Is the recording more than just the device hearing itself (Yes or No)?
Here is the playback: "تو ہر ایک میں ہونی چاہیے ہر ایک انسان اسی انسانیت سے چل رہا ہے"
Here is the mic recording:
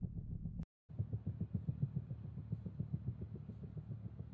No